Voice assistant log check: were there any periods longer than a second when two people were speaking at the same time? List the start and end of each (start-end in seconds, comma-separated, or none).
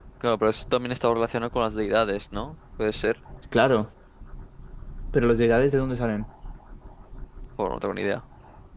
none